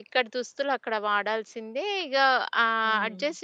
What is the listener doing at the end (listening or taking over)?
listening